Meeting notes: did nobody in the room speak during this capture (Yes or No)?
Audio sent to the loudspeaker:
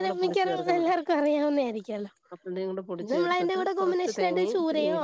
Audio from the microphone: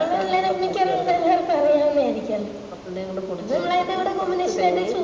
Yes